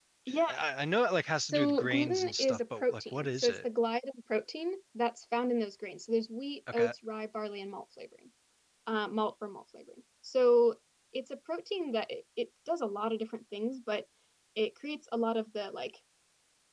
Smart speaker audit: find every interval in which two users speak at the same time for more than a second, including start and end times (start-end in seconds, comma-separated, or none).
1.4-3.6